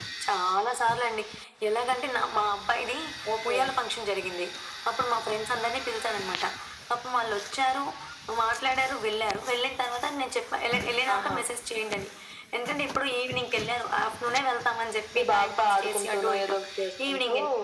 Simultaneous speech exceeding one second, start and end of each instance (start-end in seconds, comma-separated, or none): 15.2-16.5